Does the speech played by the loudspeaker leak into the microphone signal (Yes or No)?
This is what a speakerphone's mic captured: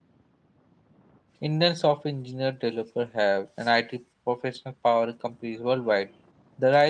No